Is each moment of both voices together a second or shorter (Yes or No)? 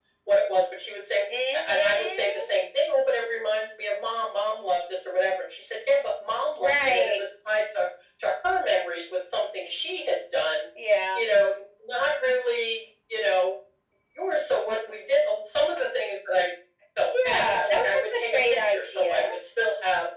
No